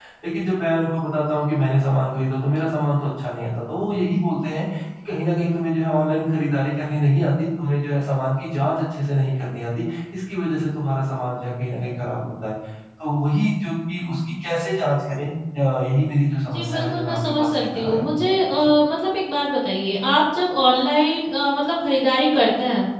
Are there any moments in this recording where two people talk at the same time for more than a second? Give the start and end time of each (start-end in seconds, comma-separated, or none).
16.5-18.1